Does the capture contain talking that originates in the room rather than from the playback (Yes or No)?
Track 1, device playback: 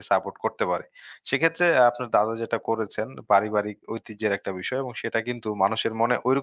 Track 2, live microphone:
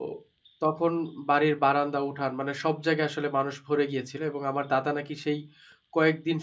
Yes